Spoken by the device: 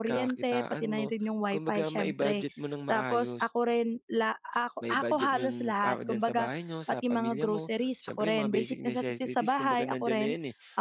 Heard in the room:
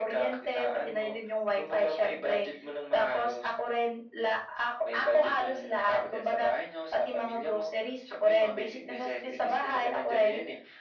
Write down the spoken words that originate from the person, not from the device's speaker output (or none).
none